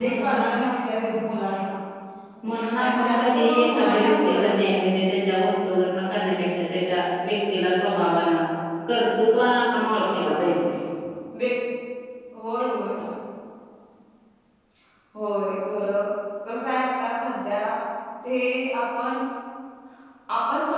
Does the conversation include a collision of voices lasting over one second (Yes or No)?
Yes